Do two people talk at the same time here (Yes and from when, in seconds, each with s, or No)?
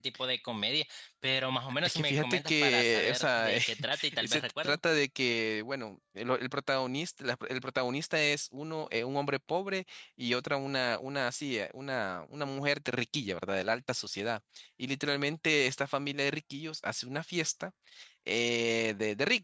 Yes, from 1.9 s